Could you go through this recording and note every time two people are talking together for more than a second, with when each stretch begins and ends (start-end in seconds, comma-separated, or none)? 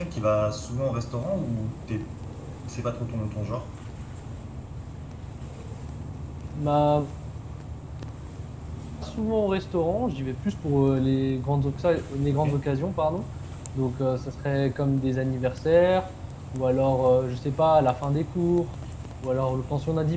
none